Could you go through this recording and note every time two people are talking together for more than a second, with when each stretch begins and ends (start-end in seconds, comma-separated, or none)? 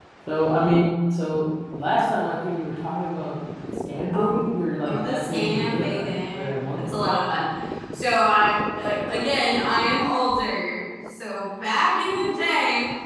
4.9-7.1